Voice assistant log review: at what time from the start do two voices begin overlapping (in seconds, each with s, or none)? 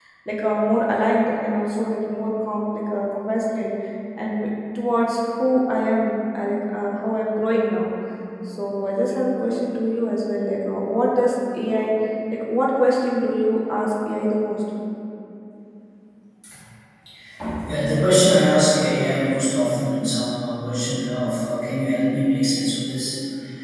none